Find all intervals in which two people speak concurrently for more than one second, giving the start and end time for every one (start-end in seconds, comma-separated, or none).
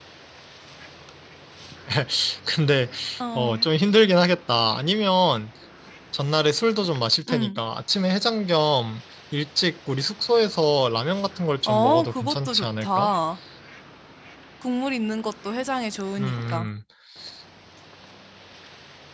11.7-13.1